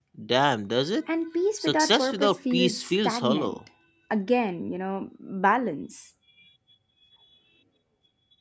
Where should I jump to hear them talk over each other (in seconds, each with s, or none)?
1.6 s